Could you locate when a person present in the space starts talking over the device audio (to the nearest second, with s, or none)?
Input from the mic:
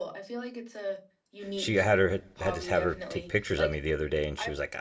2 s